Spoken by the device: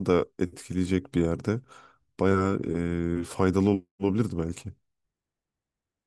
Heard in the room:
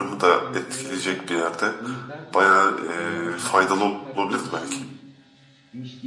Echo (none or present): present